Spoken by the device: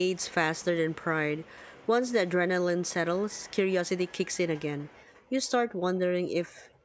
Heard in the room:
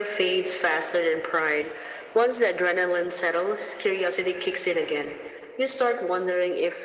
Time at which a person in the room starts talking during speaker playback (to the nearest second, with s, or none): none